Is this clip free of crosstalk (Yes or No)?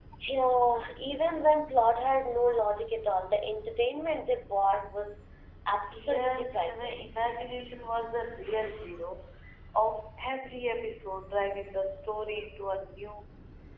No